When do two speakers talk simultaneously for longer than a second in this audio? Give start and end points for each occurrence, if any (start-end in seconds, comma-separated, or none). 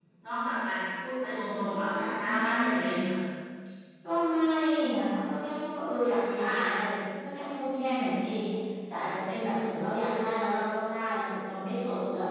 1.6-3.0